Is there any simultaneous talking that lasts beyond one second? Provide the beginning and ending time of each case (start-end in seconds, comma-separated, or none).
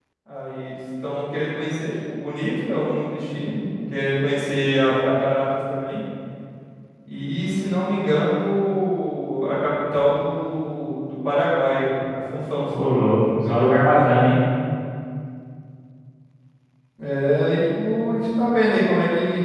12.8-14.1